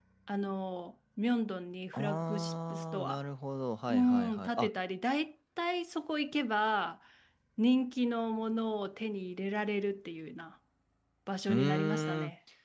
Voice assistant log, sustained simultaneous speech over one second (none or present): present